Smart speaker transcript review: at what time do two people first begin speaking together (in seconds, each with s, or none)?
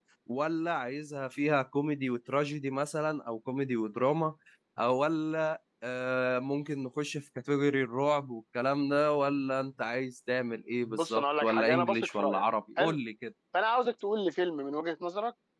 10.9 s